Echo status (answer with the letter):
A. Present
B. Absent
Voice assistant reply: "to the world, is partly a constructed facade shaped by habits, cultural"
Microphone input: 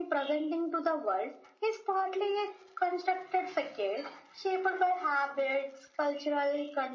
A